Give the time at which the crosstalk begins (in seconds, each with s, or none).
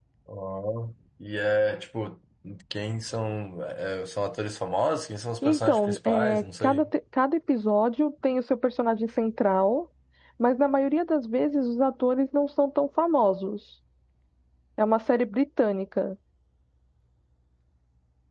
5.4 s